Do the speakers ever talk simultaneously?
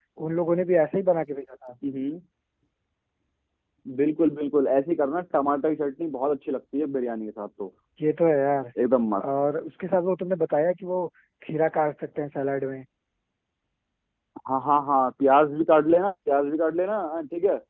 No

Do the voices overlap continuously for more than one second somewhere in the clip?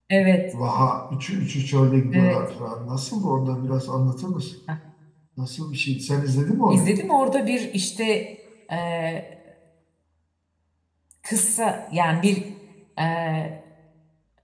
No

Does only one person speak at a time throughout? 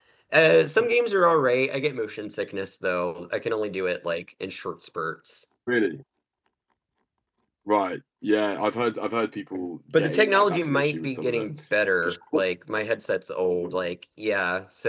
No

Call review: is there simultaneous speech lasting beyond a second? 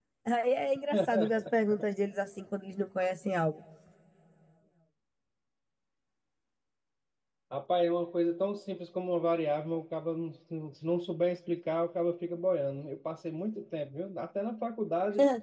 No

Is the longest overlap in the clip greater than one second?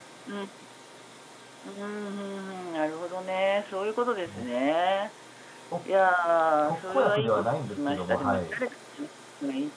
Yes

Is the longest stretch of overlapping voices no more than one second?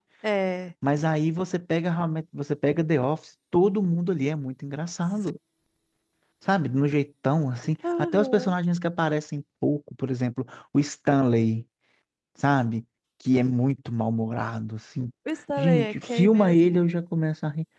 No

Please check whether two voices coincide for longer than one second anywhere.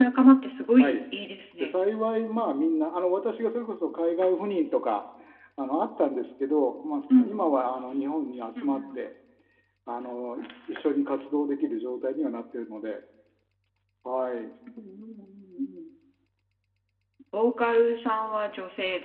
No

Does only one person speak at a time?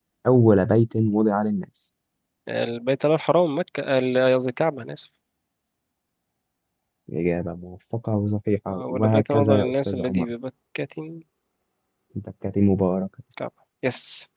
No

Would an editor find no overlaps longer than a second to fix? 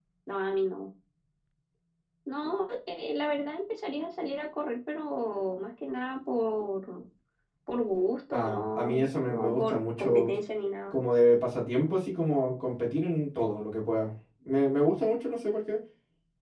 No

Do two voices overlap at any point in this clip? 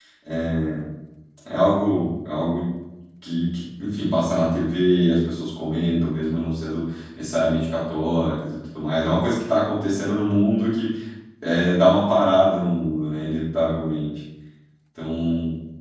No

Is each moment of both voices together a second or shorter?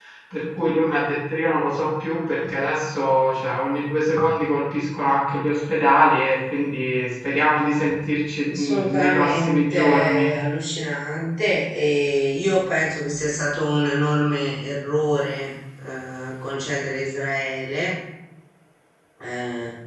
No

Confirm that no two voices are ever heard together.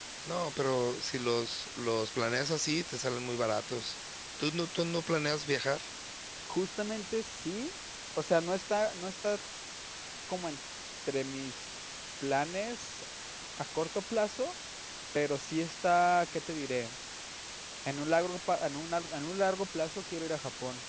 Yes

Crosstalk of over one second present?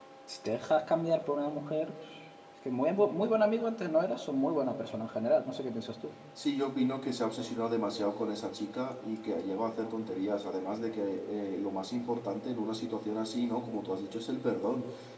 No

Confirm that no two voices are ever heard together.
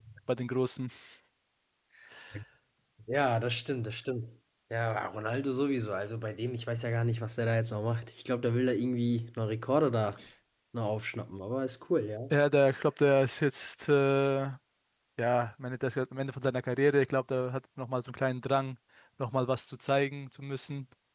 Yes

